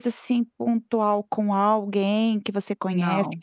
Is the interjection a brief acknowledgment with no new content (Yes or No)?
Yes